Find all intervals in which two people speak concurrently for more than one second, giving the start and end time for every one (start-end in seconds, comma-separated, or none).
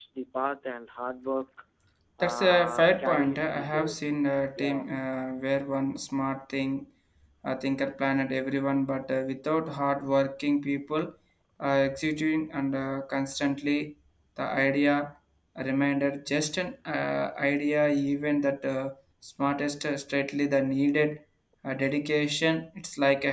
2.2-4.0